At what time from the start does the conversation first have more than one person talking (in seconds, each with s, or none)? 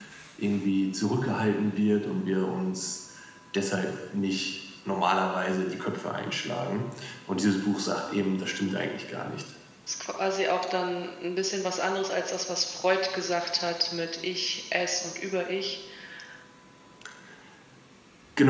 none